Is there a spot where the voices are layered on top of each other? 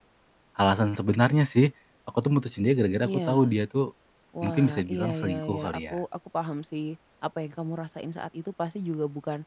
Yes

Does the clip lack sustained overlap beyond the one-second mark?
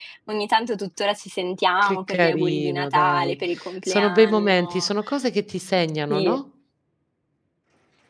No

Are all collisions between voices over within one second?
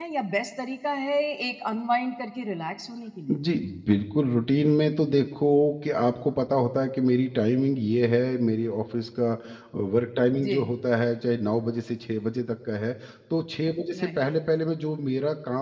Yes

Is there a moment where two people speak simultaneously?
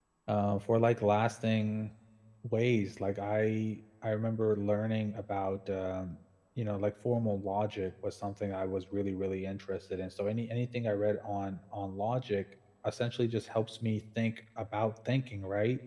No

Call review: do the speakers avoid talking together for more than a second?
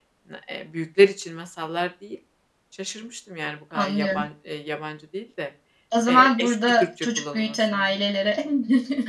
No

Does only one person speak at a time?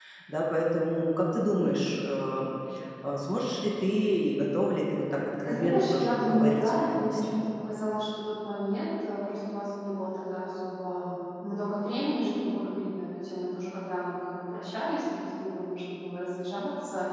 No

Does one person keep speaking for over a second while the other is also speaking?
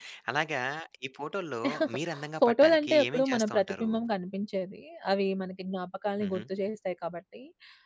Yes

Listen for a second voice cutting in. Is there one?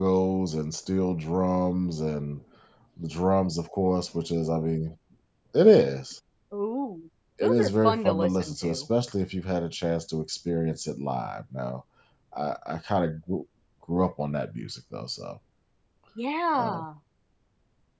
Yes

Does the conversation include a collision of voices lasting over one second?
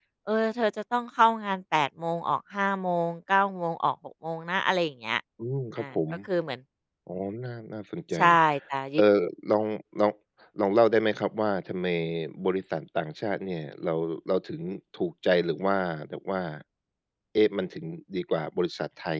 No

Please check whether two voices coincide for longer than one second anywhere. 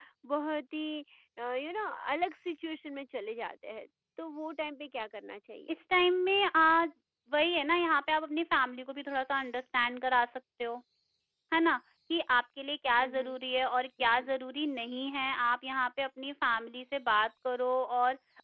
No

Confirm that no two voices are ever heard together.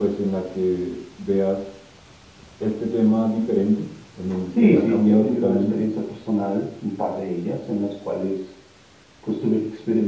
No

